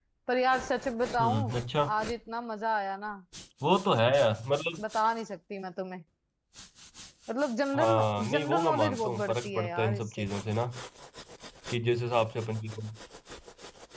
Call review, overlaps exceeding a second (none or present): present